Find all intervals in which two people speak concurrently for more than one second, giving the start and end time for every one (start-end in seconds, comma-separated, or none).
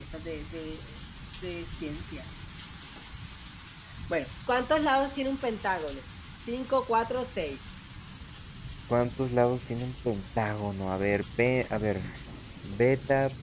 none